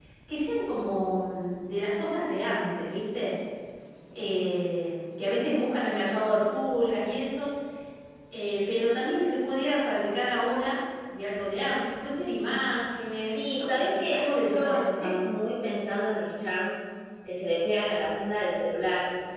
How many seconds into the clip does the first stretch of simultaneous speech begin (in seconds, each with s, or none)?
13.3 s